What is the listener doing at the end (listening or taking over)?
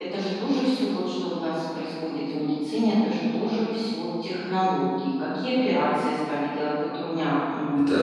taking over